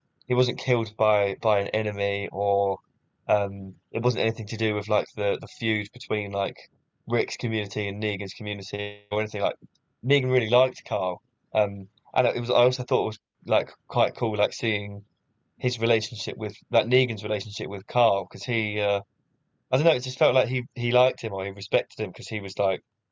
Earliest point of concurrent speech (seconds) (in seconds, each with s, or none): none